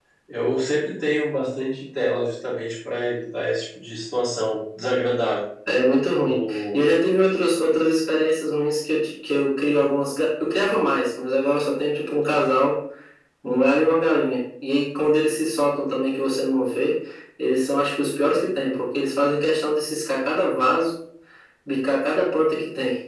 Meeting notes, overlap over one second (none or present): none